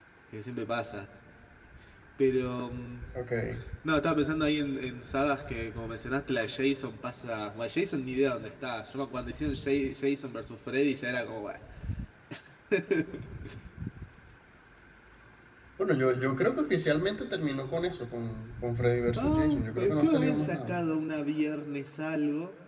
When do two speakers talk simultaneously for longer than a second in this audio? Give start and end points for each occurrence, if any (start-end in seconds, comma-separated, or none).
19.2-20.8